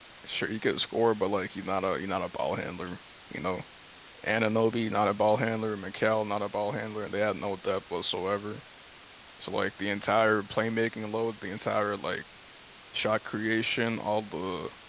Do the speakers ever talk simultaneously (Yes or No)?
No